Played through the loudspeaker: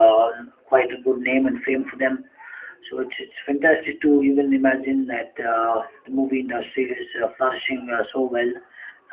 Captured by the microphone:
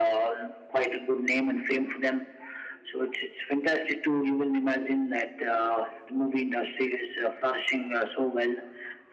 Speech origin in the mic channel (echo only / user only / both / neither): echo only